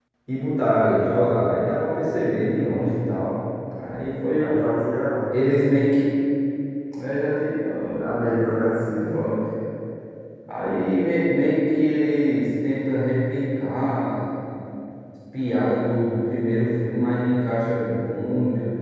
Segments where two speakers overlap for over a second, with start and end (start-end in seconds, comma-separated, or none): none